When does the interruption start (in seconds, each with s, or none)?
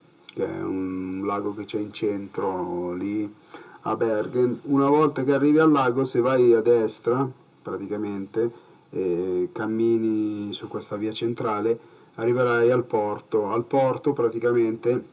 none